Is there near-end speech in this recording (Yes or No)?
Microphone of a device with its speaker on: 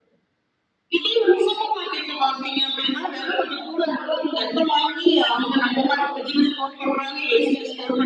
No